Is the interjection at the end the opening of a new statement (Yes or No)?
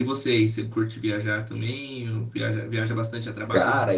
Yes